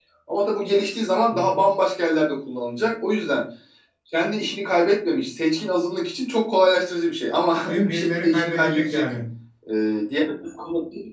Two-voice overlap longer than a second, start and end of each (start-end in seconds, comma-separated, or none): 7.7-9.0